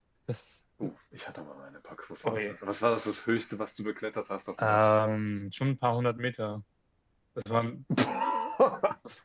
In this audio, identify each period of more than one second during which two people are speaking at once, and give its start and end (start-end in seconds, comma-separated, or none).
none